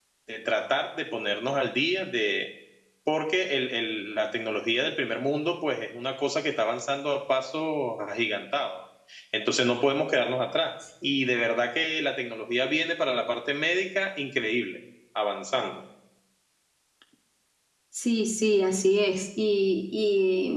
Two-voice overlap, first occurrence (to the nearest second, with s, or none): none